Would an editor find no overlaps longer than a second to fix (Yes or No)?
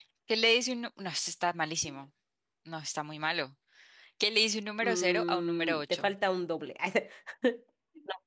No